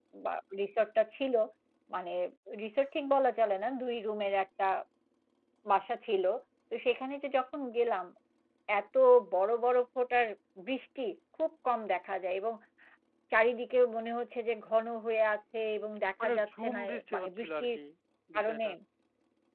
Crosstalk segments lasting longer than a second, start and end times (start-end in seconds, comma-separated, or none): 16.2-17.7